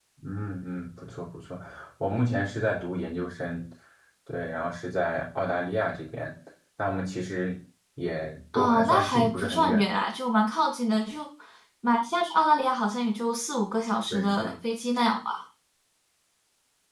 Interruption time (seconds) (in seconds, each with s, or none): 8.5 s